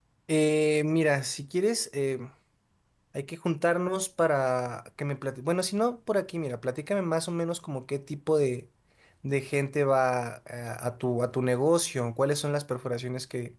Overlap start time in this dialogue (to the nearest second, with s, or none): none